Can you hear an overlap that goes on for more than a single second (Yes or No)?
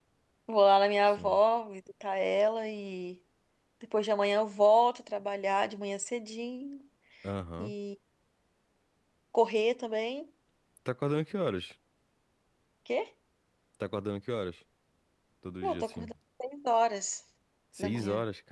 No